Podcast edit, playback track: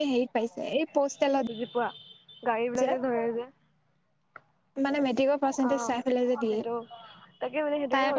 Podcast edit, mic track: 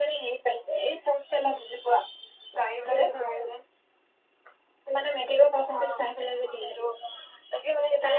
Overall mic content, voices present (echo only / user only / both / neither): echo only